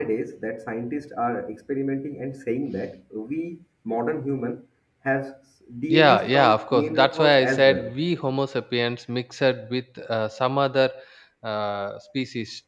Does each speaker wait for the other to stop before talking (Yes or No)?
No